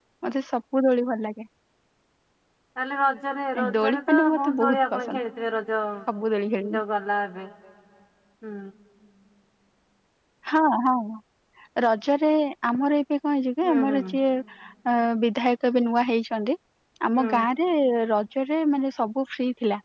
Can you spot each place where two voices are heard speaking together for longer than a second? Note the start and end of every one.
3.6-5.2

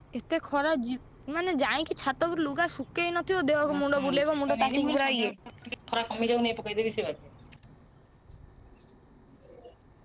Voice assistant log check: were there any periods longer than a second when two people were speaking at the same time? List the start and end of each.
3.7-5.3

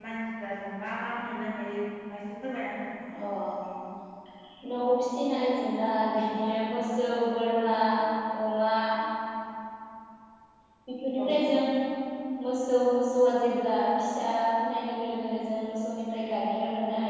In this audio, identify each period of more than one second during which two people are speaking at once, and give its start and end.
none

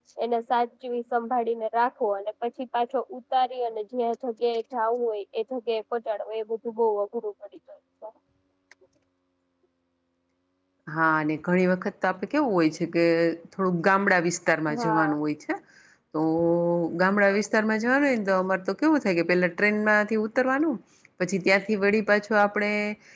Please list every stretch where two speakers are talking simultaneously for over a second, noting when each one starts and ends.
none

